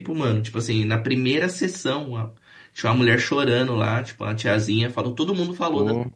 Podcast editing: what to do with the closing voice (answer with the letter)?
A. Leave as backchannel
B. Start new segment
A